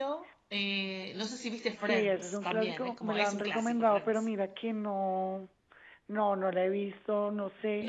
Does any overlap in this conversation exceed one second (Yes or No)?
Yes